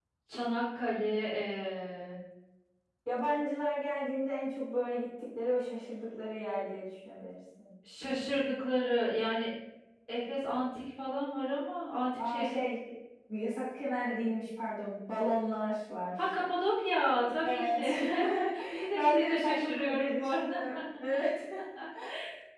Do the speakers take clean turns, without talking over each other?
No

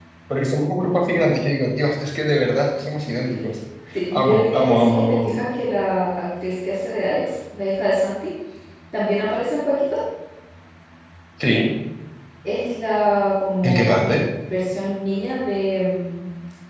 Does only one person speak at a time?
No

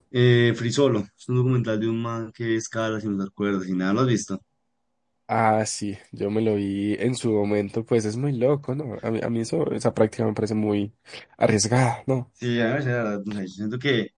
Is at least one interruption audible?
No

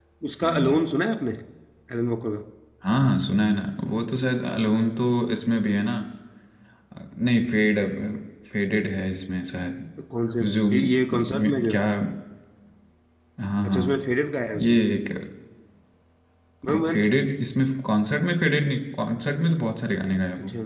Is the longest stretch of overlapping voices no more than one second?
No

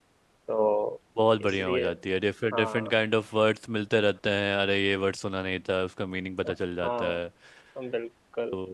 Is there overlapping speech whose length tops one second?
No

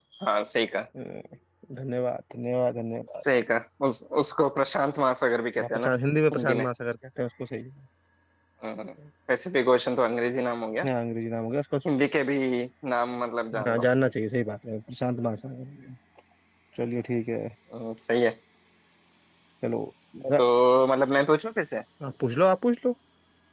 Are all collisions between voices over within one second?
Yes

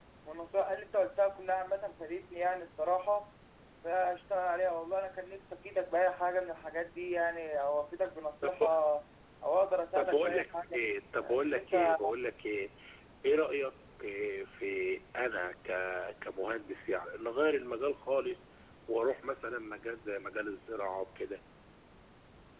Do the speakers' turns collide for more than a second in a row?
Yes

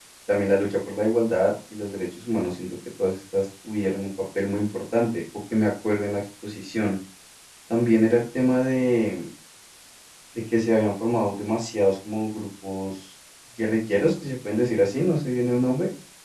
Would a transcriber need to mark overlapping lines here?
No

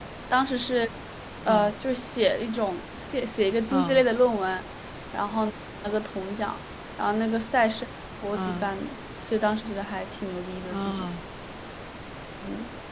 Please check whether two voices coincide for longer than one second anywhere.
No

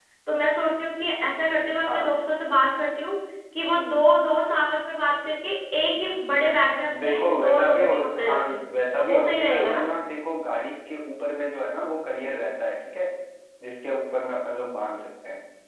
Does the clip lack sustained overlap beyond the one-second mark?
No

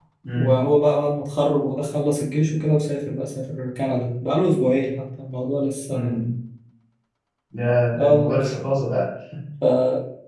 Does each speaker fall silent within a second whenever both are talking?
Yes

